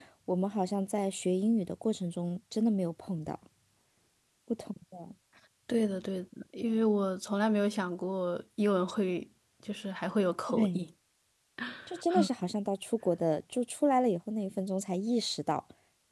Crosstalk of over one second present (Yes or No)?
No